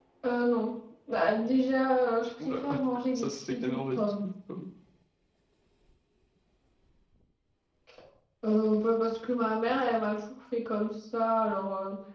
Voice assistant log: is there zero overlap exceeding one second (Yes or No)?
No